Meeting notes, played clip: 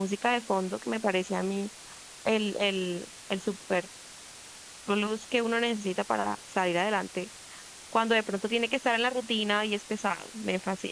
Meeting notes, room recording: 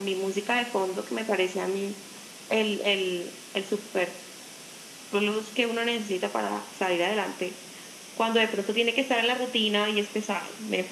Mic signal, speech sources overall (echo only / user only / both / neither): echo only